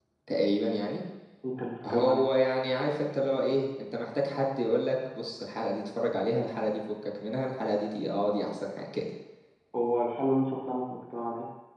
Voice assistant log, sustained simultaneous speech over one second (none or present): none